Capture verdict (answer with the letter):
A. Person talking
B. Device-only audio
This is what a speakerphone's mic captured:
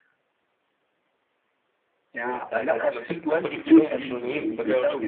A